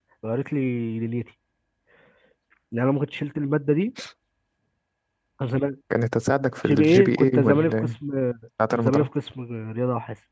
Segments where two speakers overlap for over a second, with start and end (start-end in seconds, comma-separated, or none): 6.7-7.9